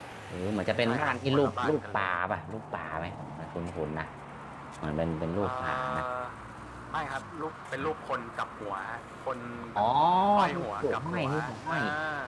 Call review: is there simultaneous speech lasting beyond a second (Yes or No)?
Yes